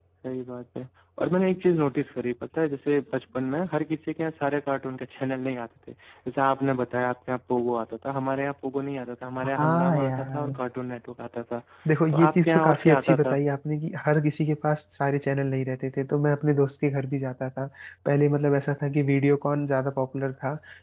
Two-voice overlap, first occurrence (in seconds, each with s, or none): 9.4 s